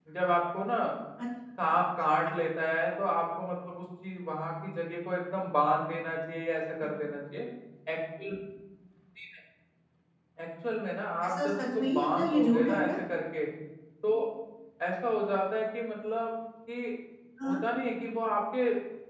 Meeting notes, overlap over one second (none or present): present